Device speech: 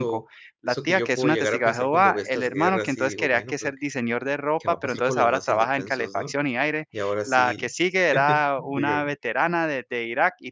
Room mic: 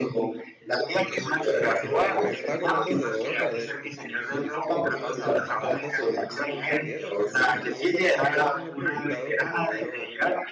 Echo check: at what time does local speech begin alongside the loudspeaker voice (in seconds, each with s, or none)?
1.4 s